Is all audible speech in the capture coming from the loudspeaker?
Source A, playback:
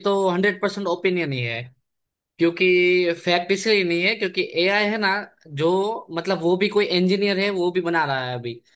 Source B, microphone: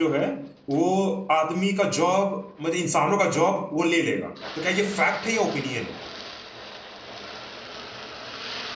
No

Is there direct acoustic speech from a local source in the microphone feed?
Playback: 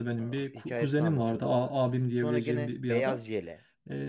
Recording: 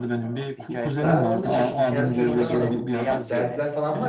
Yes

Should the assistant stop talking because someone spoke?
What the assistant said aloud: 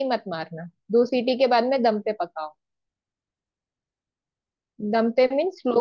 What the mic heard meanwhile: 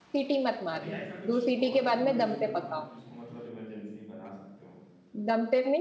Yes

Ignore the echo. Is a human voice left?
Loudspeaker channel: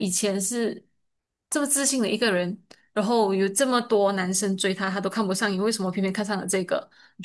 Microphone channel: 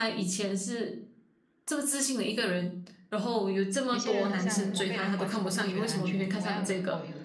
Yes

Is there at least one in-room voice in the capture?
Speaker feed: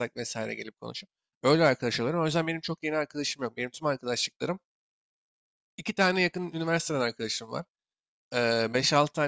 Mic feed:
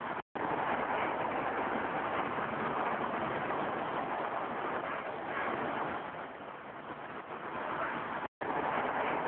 No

